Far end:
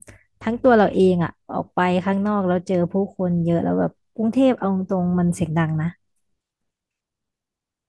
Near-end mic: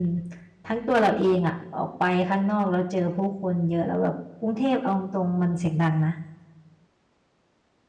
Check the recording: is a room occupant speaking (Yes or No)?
No